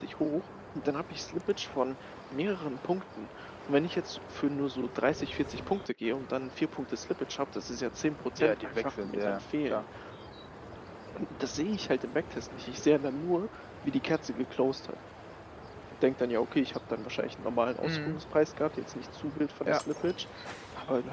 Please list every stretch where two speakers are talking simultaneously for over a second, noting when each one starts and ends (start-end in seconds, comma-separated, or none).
8.4-9.8